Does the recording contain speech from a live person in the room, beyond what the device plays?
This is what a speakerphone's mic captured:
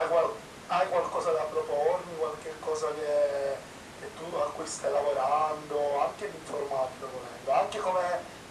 No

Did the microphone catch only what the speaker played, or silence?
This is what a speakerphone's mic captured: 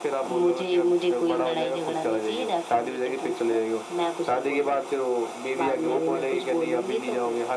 Yes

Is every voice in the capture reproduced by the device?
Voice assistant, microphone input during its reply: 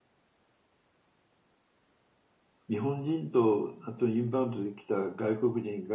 No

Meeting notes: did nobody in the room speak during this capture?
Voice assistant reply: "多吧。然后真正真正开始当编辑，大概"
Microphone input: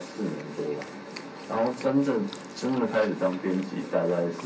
Yes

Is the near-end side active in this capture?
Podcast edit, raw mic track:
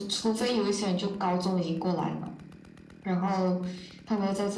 No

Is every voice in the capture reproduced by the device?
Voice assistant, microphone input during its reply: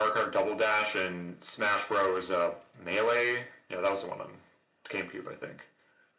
Yes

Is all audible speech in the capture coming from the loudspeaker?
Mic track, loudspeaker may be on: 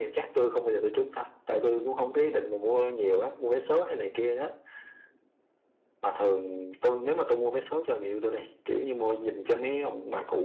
Yes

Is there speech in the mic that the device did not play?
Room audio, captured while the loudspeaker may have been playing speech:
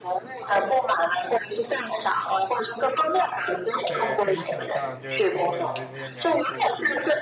Yes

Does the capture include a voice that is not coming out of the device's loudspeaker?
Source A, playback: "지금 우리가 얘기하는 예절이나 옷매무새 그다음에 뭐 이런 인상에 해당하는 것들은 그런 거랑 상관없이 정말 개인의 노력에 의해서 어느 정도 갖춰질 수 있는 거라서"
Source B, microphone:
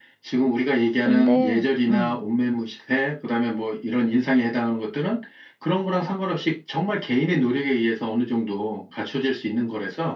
Yes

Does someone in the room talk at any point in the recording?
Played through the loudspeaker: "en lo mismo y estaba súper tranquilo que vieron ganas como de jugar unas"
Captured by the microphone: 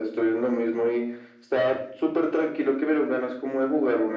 No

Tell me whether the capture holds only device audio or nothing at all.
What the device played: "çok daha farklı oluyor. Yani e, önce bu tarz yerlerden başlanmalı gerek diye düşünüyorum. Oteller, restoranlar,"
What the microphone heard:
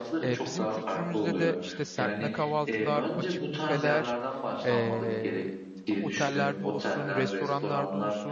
No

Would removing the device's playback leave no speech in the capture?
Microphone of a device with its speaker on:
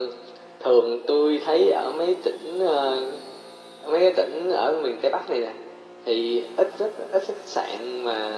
Yes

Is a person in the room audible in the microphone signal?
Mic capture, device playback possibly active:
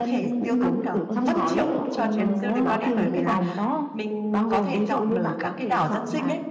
Yes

